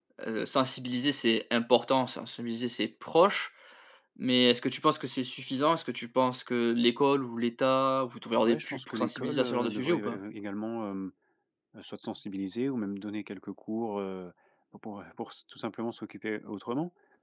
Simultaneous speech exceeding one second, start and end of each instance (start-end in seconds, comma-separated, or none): 8.4-10.2